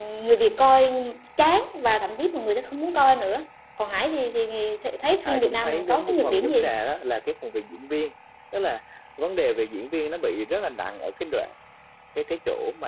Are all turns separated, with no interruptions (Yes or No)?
No